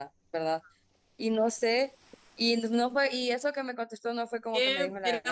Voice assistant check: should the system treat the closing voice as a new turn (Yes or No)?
Yes